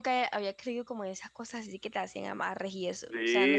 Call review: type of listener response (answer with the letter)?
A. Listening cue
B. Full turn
B